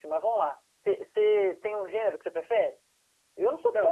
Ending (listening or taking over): taking over